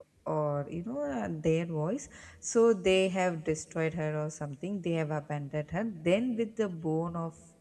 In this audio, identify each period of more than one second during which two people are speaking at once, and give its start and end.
none

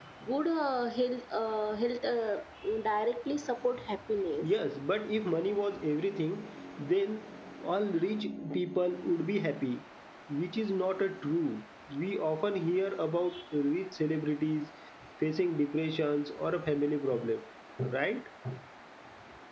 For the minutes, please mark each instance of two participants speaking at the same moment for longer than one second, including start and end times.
none

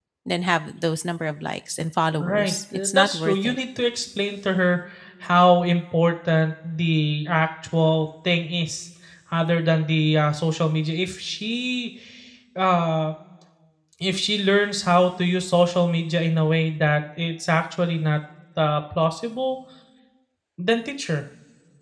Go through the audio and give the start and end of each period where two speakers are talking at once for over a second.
2.2-3.6

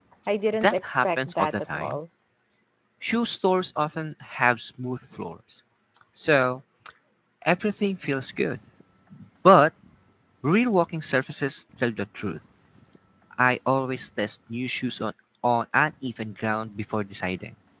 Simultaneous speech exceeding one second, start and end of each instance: 0.6-2.0

